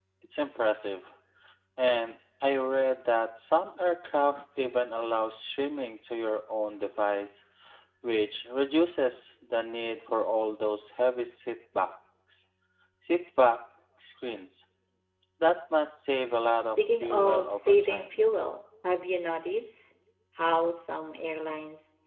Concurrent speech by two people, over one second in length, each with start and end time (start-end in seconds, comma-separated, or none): 16.5-18.1